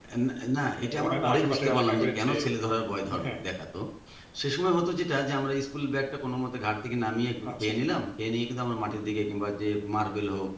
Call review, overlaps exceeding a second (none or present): present